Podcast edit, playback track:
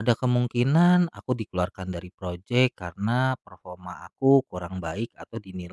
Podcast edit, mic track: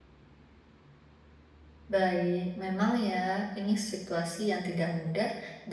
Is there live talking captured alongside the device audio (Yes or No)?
Yes